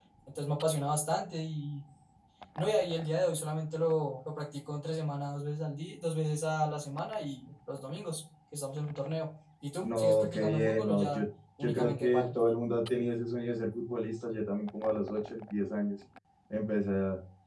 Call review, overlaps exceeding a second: present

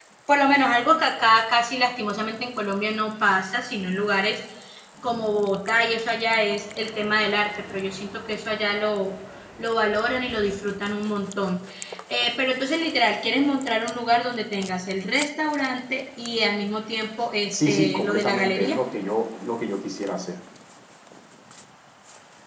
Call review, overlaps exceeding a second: present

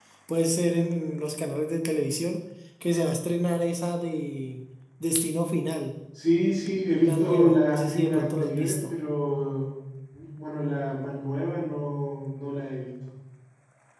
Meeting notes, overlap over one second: present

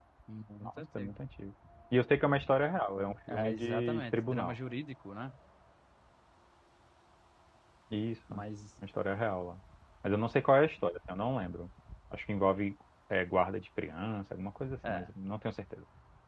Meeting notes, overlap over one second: present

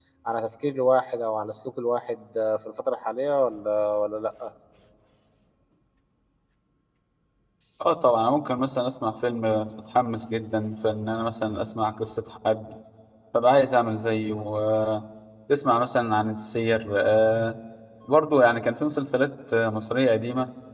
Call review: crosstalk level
none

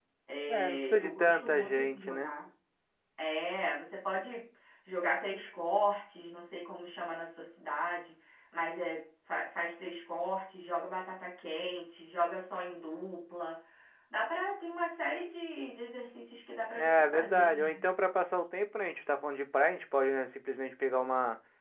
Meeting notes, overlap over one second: present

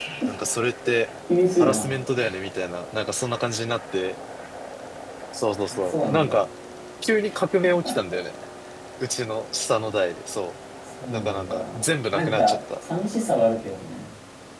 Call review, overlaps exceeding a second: present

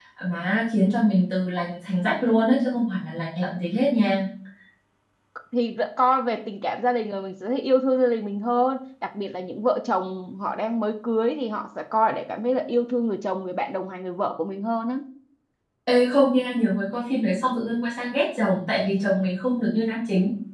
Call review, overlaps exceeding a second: none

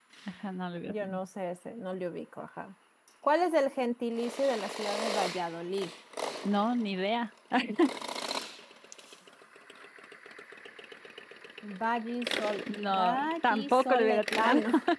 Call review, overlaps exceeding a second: present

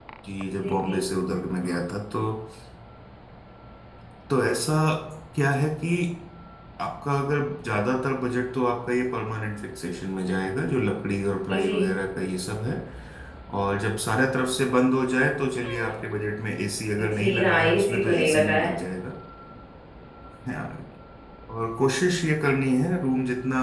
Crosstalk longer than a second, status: present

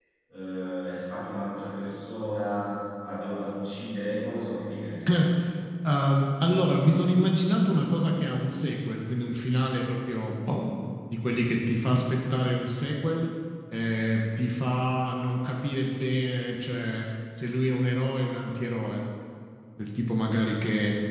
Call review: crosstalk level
none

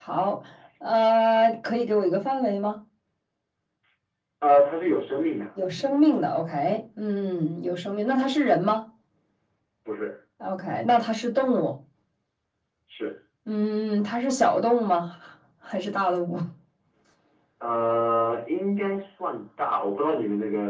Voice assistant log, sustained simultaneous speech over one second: none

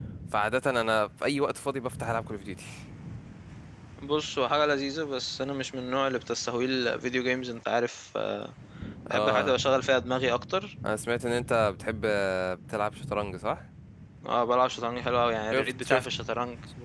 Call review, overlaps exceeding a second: none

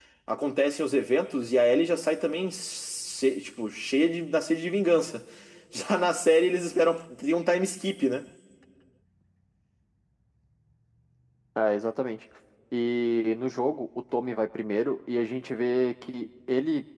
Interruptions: none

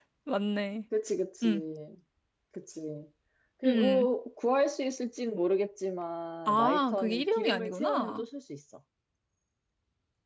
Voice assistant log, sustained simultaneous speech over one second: present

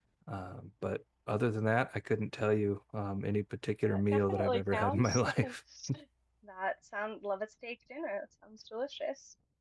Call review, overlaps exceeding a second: present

